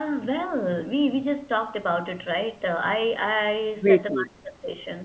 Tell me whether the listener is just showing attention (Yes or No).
Yes